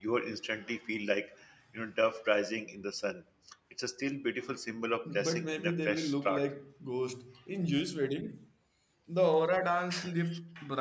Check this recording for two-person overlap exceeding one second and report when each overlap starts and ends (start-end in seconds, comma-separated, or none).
5.0-6.5